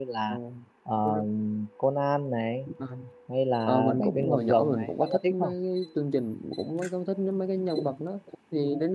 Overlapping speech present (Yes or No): Yes